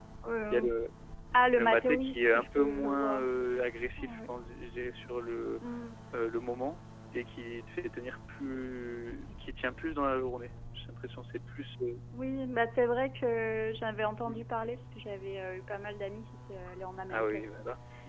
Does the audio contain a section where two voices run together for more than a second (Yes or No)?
Yes